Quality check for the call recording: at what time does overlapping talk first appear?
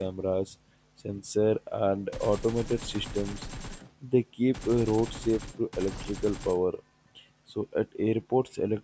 none

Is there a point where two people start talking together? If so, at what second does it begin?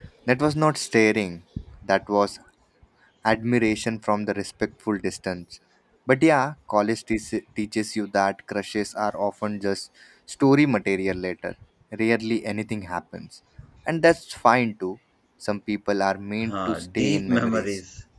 16 s

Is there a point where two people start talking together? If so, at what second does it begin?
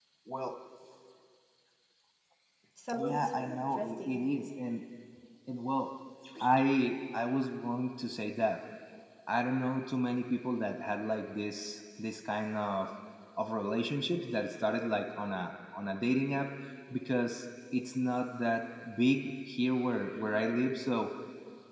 3 s

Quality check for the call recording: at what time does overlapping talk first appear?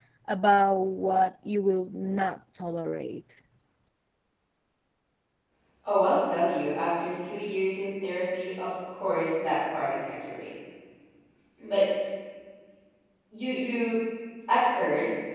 none

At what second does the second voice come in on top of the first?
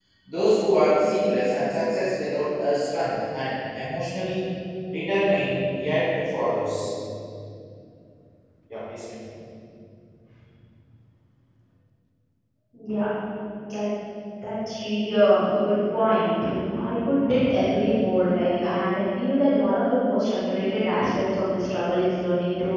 none

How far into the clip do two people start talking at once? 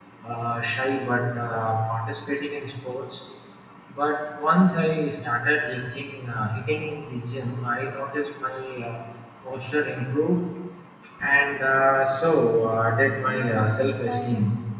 13 s

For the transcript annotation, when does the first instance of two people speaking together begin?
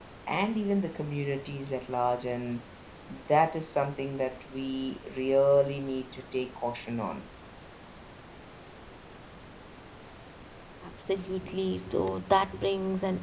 none

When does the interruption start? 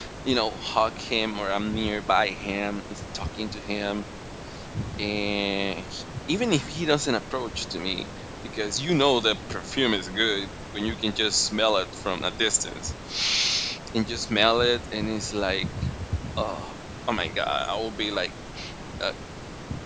none

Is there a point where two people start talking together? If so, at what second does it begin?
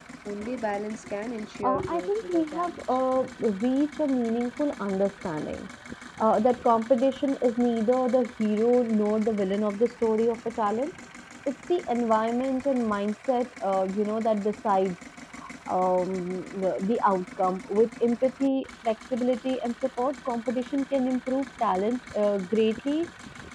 2 s

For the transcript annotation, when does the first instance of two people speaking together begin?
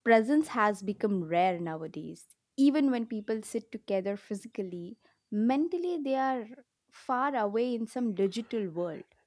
none

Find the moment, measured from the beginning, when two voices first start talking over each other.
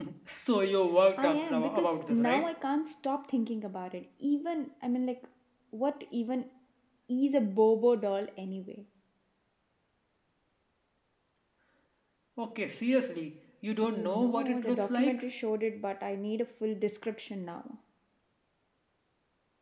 1 s

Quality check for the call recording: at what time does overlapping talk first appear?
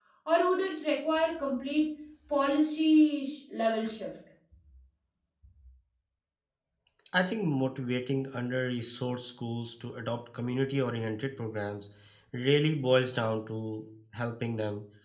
none

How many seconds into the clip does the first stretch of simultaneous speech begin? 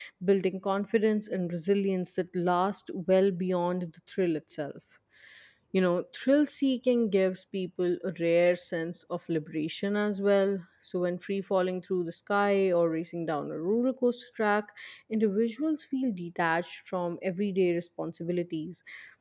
none

